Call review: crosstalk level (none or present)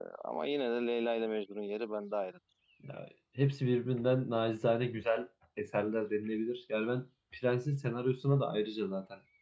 none